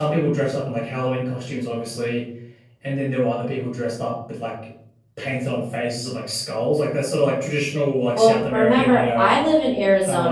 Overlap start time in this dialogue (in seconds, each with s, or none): 8.2 s